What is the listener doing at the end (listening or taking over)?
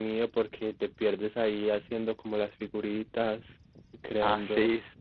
taking over